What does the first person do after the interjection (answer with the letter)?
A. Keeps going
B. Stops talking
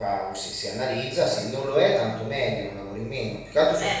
A